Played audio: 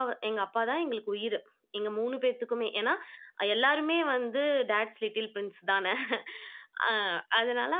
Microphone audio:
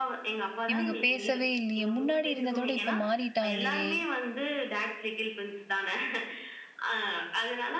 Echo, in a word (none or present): present